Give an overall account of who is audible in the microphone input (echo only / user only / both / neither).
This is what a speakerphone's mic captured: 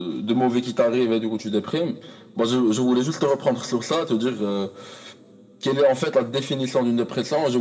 echo only